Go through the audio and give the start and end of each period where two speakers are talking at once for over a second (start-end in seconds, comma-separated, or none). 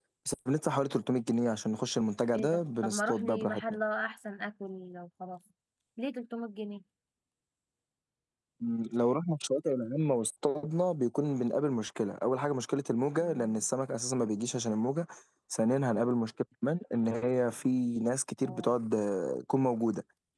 2.3-3.6